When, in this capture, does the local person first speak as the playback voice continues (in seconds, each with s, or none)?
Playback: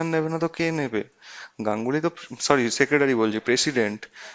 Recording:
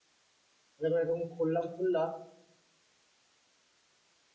0.8 s